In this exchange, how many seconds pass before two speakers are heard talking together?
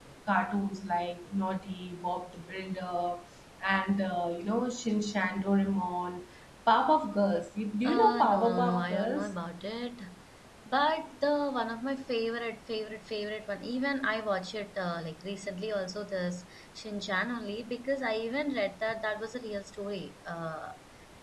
7.8 s

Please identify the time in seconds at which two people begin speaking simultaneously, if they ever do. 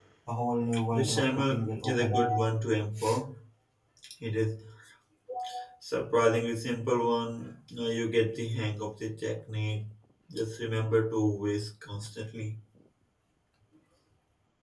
0.9 s

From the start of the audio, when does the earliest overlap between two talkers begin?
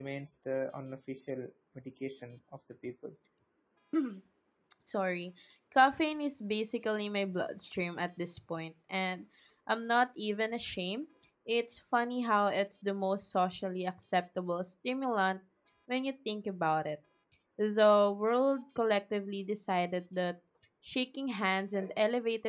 none

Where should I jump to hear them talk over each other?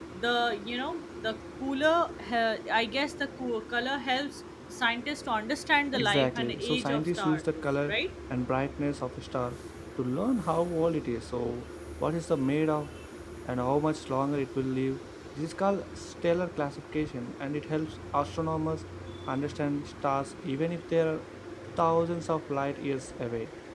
5.9 s

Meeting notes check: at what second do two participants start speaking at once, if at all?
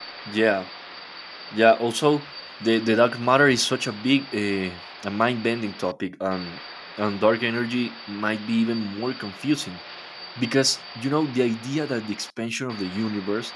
none

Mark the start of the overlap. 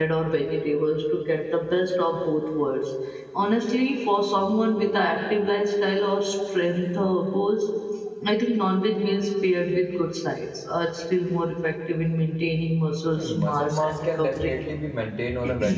13.2 s

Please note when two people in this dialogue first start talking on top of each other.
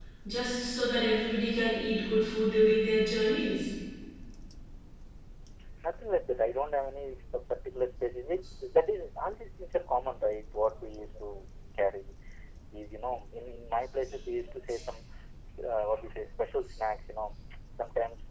none

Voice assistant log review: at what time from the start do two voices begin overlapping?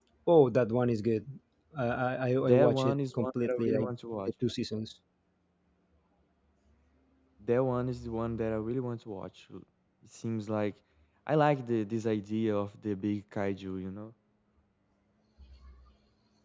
2.4 s

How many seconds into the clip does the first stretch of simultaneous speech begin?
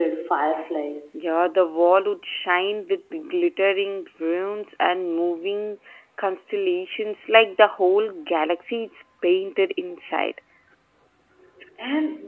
none

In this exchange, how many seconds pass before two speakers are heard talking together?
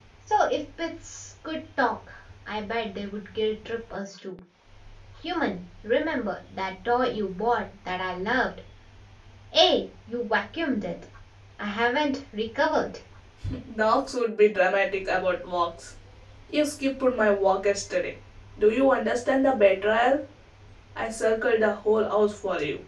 none

